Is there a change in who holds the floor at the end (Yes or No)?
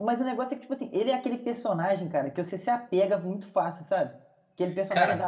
No